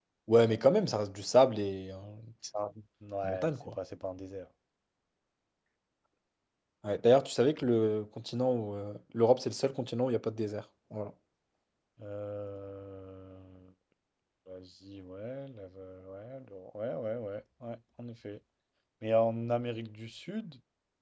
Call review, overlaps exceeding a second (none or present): none